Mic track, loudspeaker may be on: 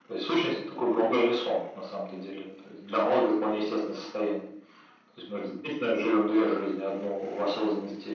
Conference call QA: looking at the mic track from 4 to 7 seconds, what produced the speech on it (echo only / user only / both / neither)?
echo only